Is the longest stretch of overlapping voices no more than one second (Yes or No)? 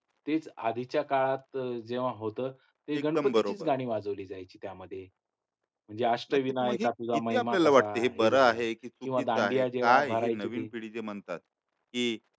No